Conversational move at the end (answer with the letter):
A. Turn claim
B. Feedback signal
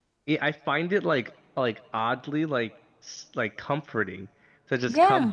B